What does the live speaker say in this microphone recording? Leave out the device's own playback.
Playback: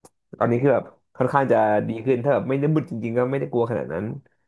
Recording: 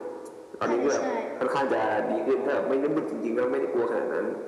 ใช่ใช่

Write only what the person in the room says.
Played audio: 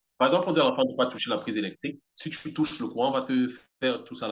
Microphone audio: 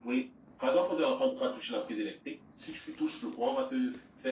none

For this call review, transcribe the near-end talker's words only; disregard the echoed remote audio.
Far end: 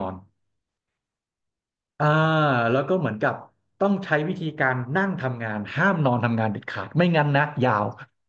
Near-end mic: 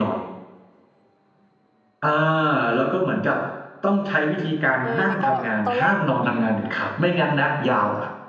เออแล้วก็ตอนแรกอืม

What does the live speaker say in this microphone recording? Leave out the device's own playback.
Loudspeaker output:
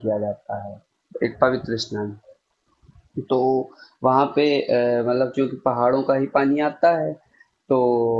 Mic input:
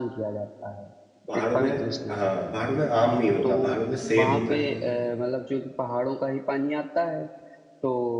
पहाड़ों में हाँ पहाड़ों में आम नहीं होता पहाड़ों में सेब होता है

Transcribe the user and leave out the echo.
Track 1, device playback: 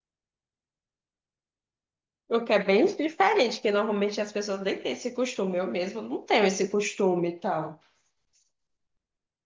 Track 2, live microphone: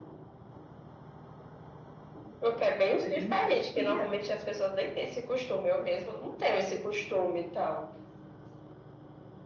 Mas ele insistia.

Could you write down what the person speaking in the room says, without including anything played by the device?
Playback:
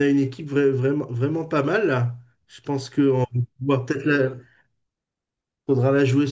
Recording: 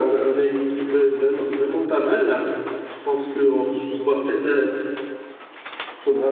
none

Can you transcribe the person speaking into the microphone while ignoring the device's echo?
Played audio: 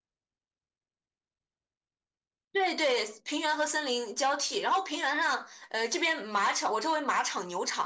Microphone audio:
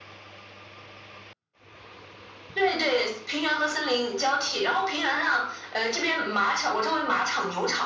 none

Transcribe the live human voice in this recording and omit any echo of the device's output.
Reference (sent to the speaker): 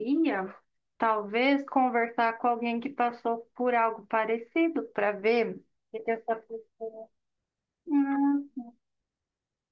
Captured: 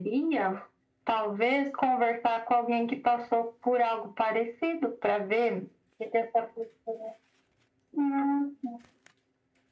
none

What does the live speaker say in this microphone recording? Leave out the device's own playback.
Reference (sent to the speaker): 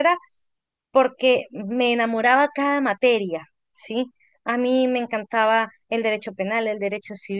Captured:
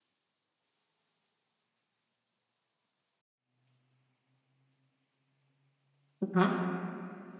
ajá.

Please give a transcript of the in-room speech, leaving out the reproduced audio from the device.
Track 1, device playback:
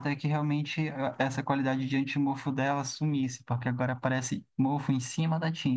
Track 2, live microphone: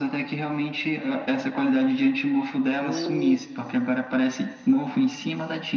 Hum,

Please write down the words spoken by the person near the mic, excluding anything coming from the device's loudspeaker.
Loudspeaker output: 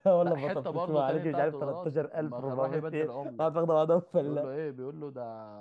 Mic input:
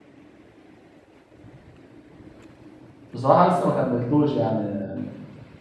بصراحه لسه ما كملتوش يعني يعني

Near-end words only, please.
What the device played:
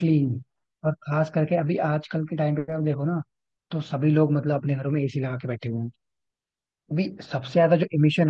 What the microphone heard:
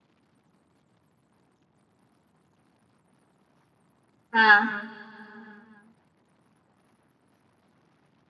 हाँ

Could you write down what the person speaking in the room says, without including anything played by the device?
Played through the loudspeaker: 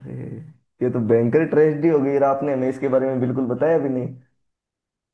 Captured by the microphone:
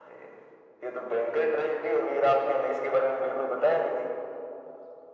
none

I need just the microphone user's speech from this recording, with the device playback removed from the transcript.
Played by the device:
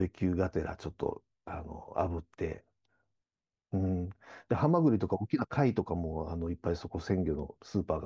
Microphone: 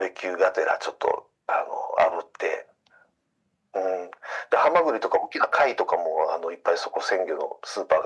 none

